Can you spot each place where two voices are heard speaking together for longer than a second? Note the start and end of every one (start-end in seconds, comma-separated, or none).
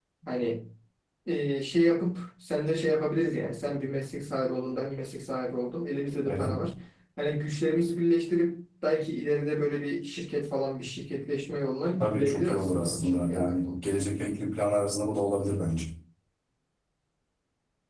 12.0-13.8